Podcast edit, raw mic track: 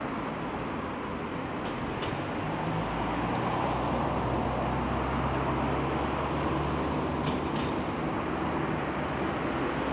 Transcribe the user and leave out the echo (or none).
none